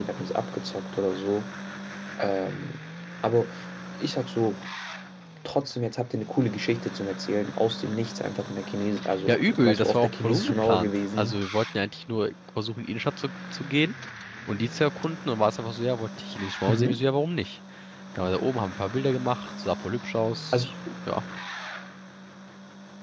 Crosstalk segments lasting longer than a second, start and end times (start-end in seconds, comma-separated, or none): 9.3-11.4